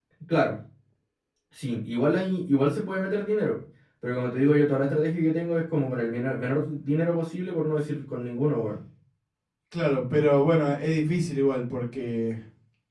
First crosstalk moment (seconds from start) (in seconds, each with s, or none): none